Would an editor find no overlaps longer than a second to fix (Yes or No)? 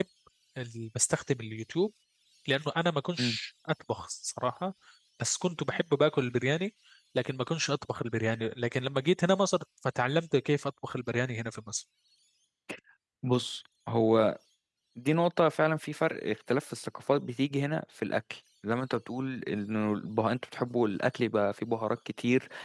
Yes